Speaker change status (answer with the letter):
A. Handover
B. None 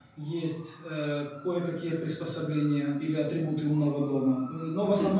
B